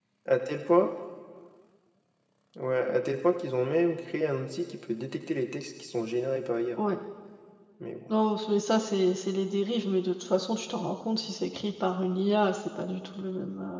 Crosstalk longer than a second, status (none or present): none